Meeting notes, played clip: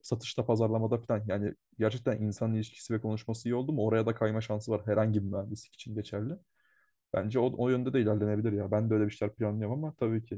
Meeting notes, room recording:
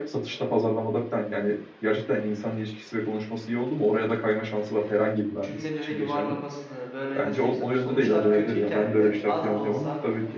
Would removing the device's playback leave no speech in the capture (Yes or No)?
No